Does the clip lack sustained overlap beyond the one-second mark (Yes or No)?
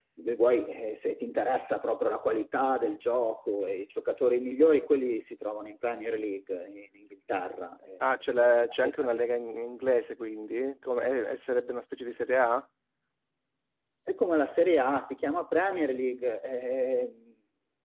Yes